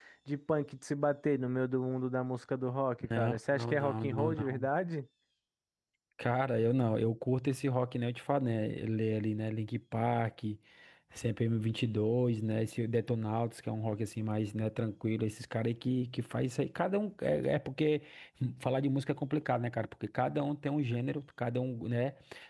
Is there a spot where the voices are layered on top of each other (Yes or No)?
Yes